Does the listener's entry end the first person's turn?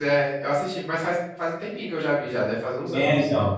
Yes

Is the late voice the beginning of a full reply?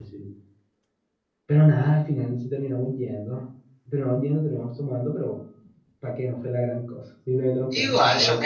Yes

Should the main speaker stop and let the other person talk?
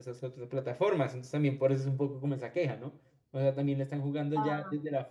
No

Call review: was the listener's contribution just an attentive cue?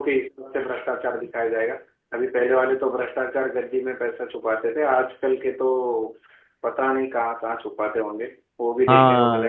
No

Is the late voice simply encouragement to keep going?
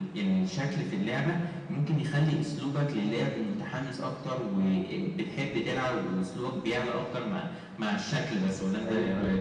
No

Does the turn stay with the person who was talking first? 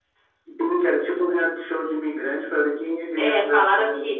No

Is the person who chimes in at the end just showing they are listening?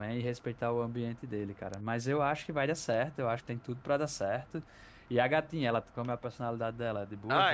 No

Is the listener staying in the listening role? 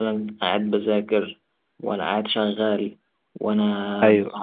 Yes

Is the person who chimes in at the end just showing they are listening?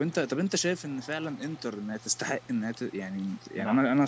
Yes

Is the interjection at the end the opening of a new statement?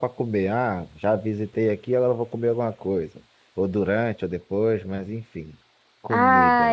Yes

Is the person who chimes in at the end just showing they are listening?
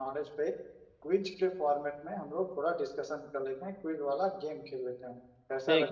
No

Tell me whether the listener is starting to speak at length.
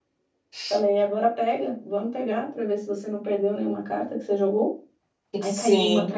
No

